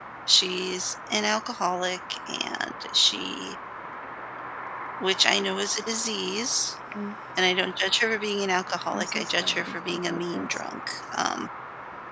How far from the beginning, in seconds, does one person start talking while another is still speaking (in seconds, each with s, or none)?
8.9 s